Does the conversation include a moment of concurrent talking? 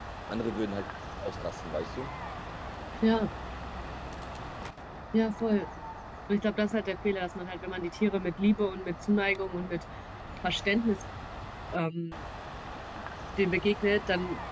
No

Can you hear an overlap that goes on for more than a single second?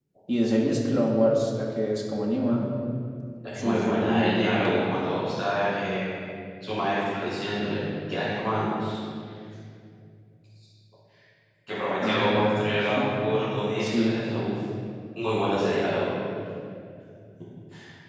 Yes, from 3.6 s

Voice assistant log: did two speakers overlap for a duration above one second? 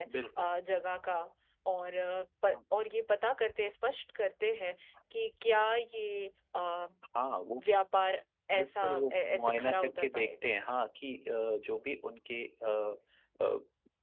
Yes, from 8.5 s

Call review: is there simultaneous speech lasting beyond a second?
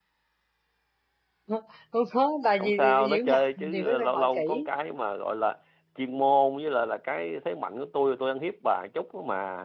Yes, from 2.6 s

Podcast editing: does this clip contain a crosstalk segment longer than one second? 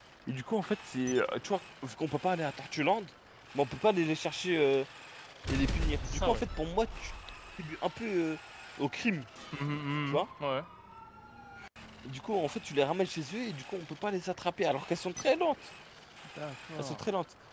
No

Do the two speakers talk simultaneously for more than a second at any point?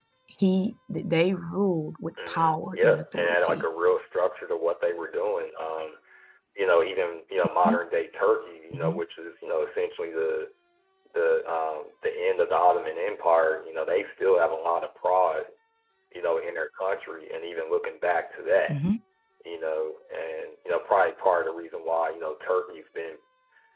Yes, from 2.3 s

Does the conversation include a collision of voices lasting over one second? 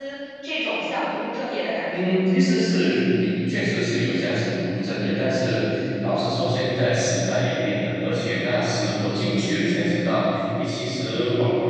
No

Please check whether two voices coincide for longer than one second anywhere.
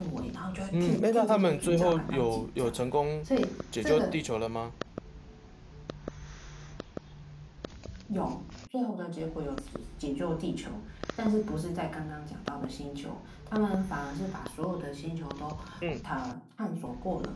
Yes, from 0.8 s

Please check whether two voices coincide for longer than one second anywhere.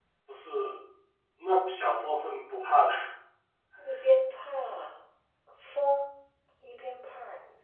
No

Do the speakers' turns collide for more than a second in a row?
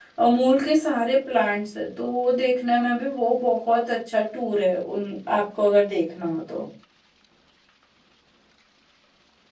No

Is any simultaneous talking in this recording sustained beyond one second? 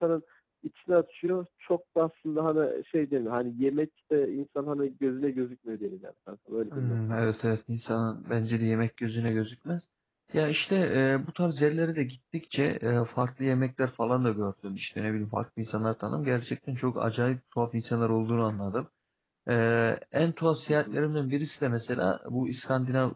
No

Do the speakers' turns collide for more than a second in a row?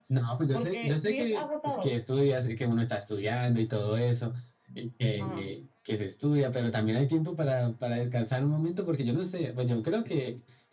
Yes, from 0.5 s

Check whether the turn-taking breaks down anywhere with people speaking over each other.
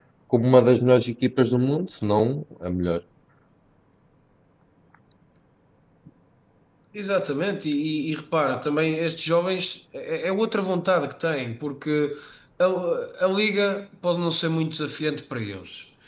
No

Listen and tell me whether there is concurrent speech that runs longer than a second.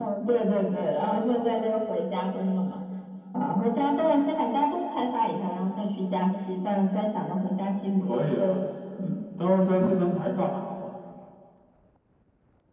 No

